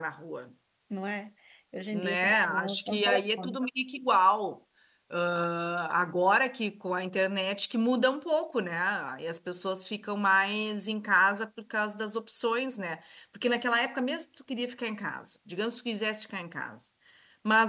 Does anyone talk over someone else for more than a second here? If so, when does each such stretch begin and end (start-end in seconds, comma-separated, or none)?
1.9-3.6